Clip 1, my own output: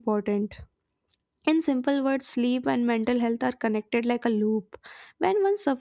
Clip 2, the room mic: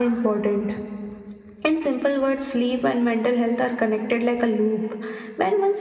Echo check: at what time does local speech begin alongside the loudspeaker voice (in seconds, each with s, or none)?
none